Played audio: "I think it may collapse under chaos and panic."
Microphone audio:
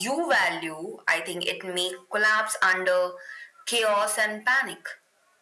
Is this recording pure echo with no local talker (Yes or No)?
Yes